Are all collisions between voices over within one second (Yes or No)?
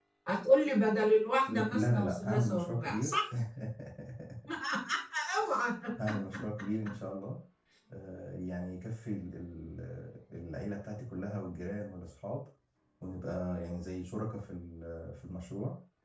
No